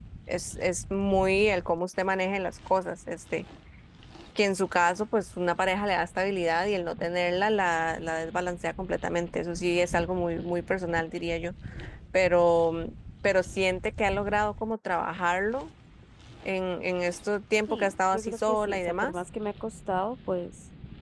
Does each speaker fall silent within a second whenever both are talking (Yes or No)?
No